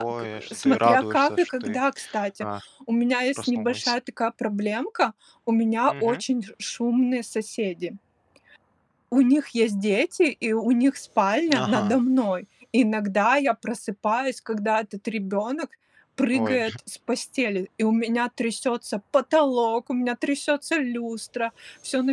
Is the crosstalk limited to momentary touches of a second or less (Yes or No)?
No